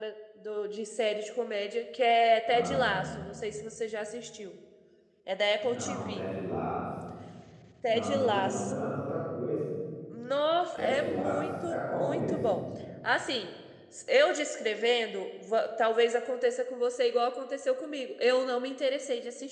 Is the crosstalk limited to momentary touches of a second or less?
No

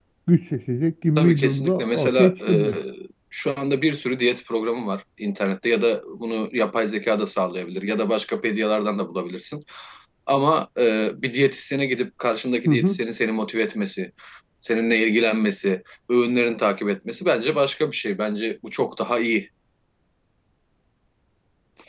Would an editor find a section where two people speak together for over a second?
Yes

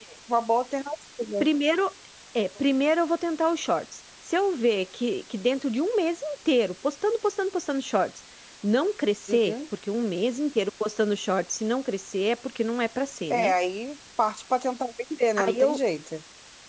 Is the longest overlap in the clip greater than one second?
No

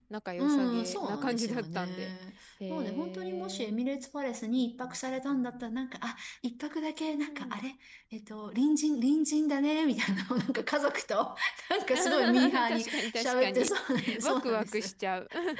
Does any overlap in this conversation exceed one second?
Yes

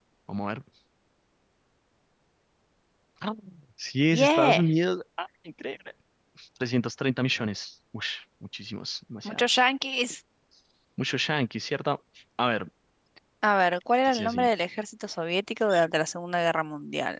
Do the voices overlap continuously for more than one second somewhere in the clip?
No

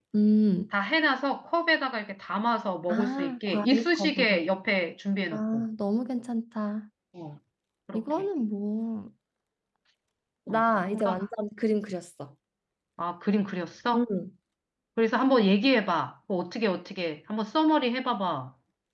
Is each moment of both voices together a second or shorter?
No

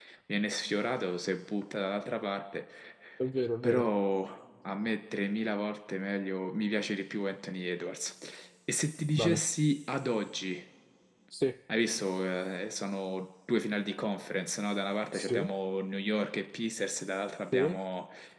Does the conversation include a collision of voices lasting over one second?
No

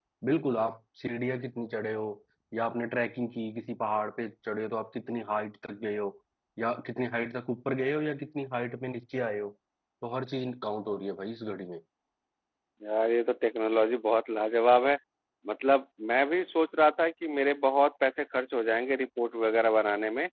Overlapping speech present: No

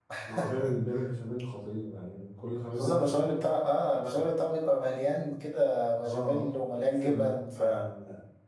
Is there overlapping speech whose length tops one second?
Yes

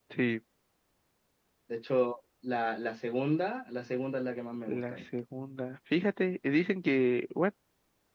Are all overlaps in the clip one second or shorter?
Yes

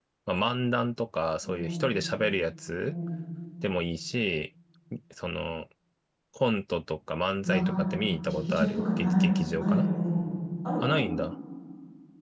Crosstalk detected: Yes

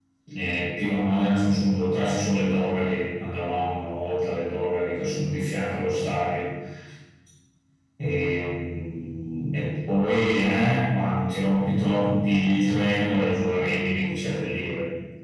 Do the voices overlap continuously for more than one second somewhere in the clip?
No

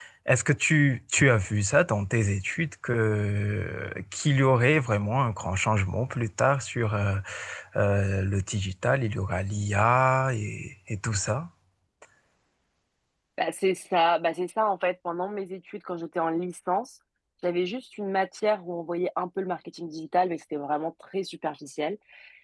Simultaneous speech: No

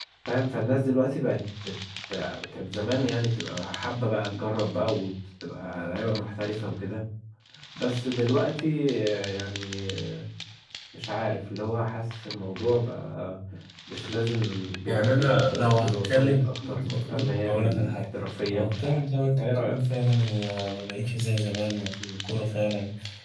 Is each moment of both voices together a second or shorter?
No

